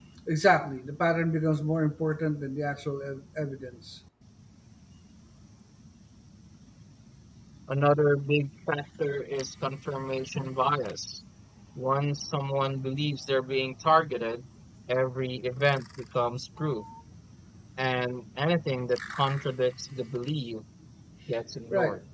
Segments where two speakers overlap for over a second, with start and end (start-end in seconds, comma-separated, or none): none